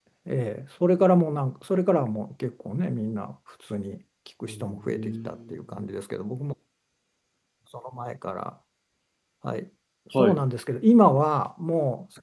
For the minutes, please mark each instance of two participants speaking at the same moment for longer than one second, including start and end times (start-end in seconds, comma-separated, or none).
4.5-5.9